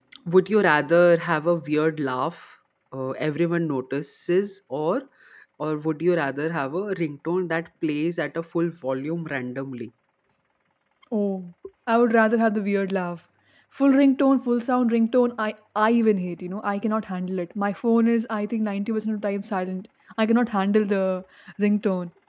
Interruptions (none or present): none